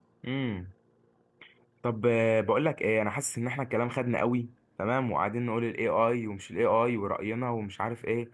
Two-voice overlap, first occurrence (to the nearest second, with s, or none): none